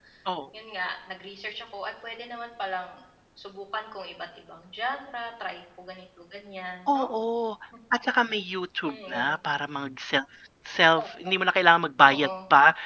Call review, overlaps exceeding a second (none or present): none